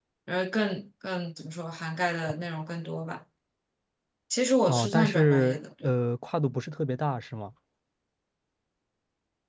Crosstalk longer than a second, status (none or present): present